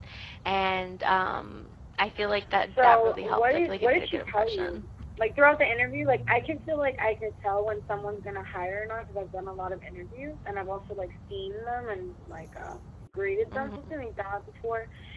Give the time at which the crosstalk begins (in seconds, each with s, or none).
2.5 s